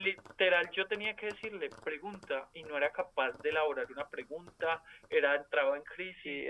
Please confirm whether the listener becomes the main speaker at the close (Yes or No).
Yes